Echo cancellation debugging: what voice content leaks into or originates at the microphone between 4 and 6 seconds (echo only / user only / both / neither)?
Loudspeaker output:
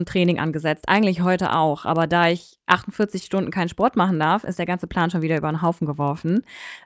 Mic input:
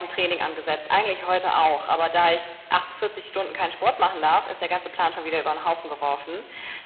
echo only